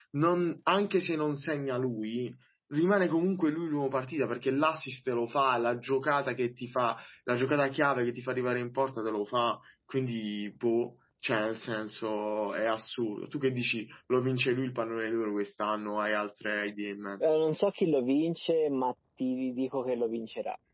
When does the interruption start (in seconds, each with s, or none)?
none